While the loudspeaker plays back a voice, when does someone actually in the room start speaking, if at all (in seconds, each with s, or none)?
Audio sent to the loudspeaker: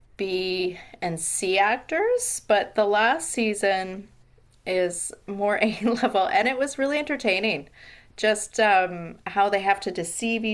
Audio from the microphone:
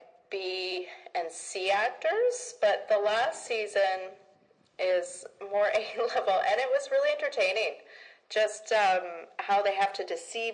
none